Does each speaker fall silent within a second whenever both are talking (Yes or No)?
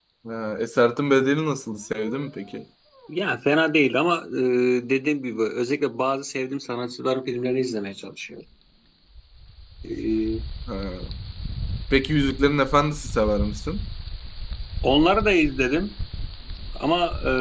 Yes